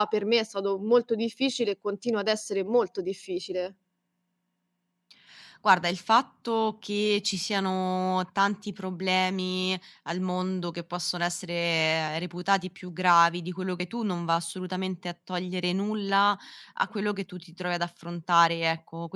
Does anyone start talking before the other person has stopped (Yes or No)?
No